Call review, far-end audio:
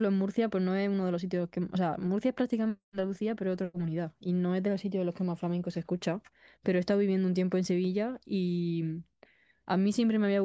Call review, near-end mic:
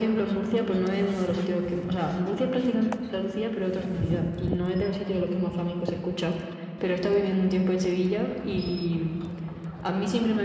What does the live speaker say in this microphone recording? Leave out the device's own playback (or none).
none